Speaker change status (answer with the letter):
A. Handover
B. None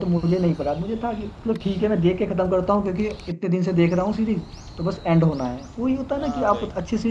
A